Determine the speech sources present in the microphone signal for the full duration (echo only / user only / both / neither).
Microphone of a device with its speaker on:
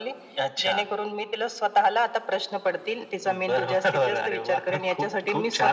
echo only